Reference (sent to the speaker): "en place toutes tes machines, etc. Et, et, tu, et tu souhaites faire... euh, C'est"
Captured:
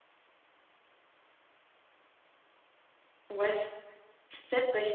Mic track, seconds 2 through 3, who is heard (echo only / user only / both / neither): neither